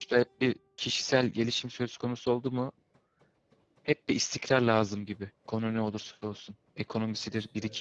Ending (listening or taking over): listening